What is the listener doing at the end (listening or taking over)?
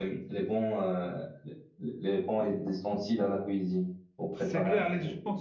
taking over